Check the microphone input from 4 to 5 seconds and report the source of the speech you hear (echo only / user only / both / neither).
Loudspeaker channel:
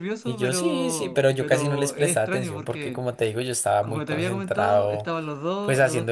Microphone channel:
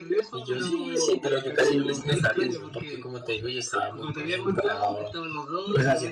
echo only